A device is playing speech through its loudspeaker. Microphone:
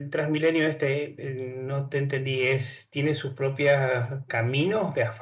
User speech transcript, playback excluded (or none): none